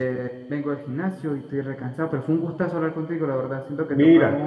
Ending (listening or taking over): listening